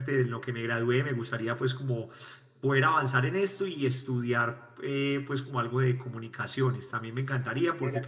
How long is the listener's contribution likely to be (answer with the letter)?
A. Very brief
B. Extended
A